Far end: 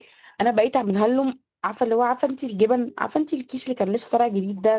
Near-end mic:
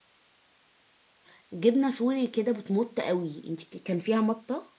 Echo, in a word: none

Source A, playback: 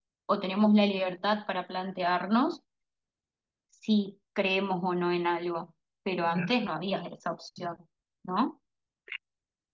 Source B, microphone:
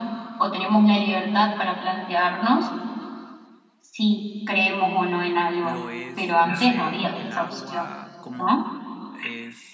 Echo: present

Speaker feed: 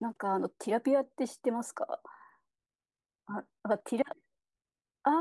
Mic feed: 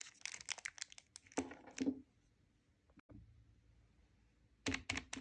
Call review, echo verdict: none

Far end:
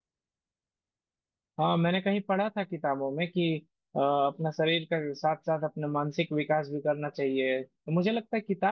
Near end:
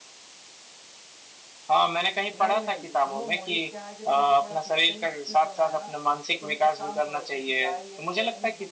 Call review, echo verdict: present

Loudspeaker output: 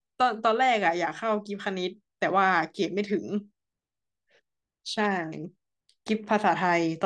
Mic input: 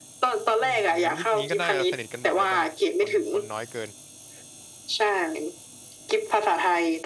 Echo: present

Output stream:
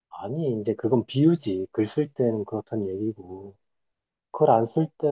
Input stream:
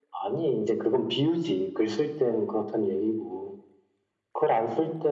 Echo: present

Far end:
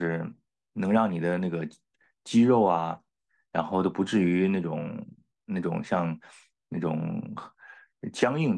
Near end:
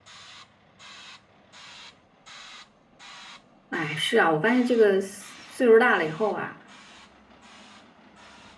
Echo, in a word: none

